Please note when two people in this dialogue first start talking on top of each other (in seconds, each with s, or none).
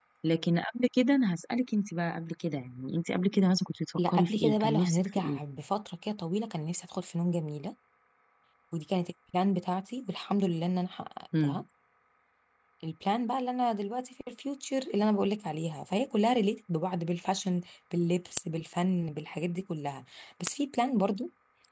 4.0 s